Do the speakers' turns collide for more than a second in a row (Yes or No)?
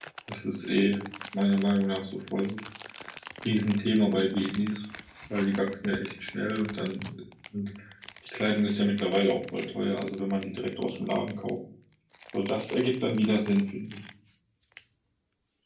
No